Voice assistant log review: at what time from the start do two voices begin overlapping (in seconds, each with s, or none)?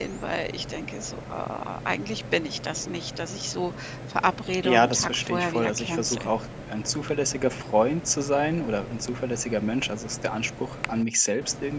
4.6 s